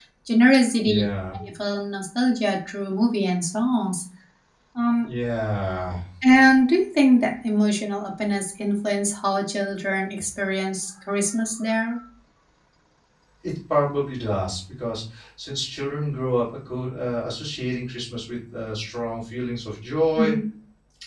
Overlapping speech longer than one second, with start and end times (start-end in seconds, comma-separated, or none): none